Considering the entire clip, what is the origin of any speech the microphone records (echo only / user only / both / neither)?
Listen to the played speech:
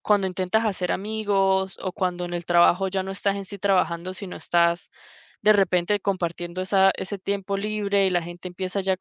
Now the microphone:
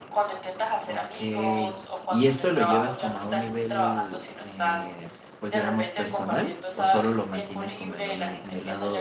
both